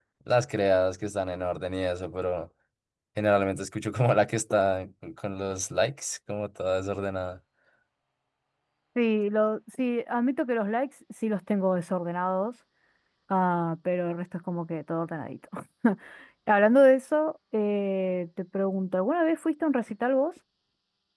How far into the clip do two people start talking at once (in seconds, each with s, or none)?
none